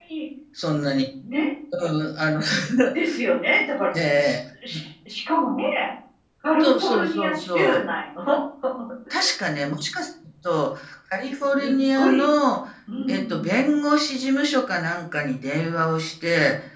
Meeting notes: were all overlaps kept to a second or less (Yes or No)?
No